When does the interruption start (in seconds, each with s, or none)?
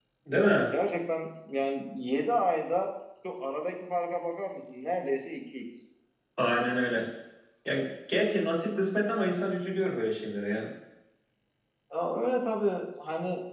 none